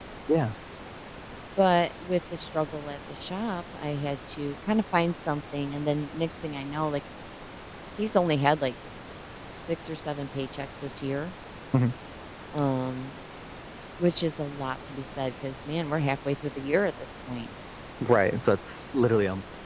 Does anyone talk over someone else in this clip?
No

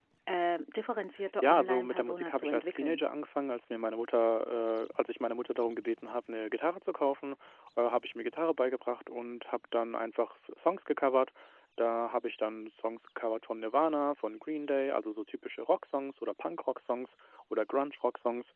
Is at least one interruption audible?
Yes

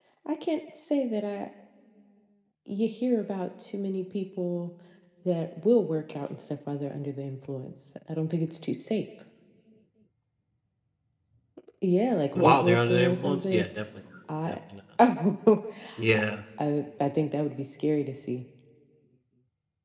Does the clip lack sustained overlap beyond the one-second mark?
No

